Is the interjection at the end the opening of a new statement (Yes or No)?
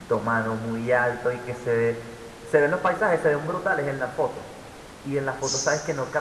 No